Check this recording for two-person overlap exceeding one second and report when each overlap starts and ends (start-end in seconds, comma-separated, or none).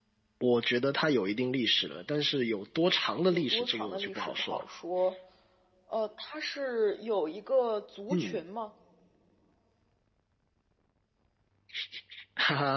3.3-4.6